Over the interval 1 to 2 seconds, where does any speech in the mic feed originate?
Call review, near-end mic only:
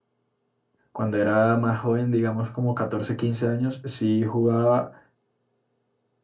user only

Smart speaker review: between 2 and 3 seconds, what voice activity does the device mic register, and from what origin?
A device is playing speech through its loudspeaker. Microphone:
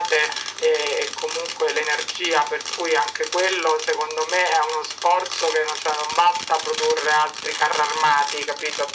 echo only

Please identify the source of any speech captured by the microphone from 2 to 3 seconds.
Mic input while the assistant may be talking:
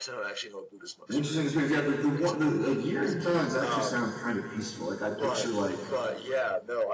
both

